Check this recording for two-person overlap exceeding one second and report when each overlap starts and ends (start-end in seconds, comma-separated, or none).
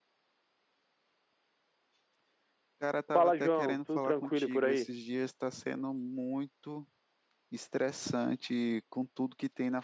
3.1-4.9